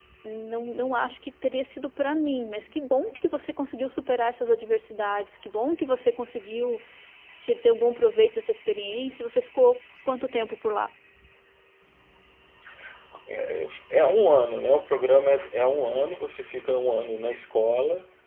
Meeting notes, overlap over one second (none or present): none